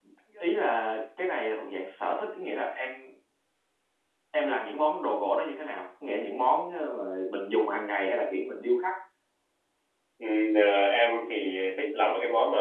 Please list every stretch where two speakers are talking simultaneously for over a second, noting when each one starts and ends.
none

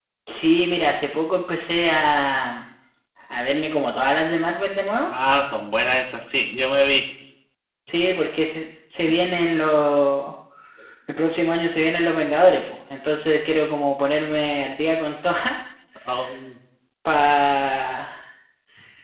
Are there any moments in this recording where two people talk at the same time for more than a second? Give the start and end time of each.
none

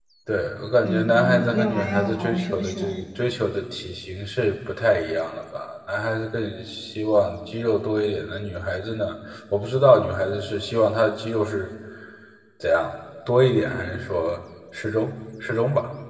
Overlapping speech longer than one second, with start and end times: 0.8-3.0

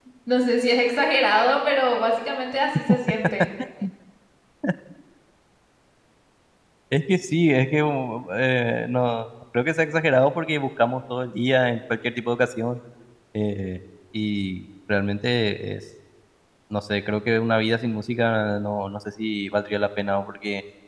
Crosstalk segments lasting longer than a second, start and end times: none

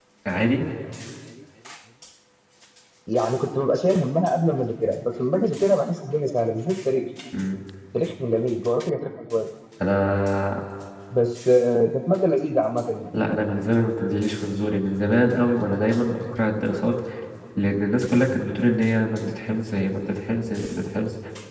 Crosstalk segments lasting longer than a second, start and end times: none

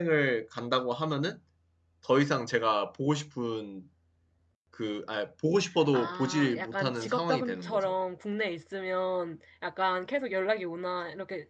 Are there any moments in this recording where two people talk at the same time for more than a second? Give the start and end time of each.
5.9-7.9

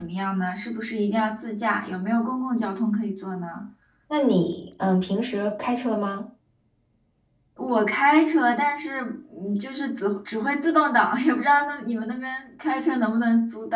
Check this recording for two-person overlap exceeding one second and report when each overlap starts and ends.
none

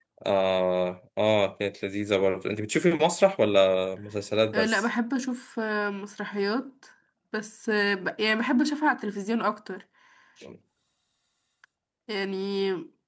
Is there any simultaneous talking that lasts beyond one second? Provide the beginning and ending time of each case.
none

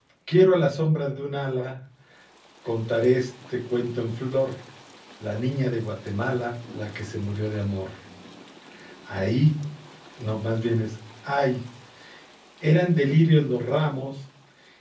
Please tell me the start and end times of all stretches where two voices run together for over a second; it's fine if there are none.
none

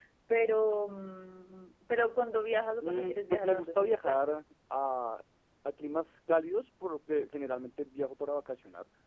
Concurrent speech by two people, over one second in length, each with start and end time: 2.8-4.2

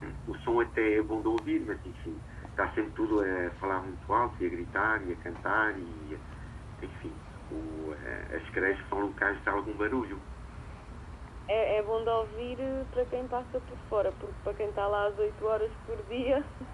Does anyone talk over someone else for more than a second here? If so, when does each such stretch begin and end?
none

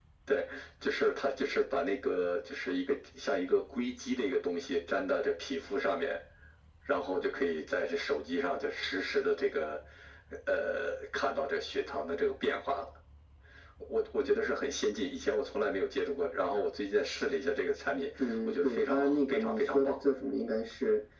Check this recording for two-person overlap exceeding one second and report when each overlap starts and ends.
18.2-20.0

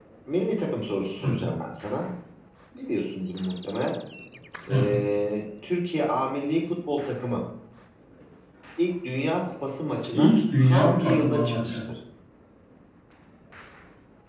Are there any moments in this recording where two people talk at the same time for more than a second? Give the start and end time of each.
10.1-11.8

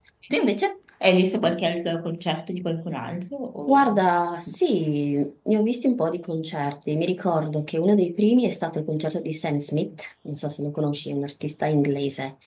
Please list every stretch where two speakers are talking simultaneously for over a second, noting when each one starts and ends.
none

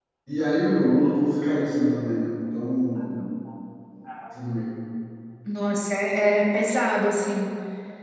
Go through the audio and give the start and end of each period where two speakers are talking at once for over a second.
none

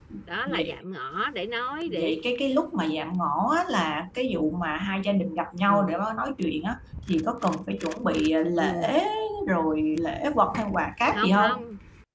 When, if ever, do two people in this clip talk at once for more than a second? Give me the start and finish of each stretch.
none

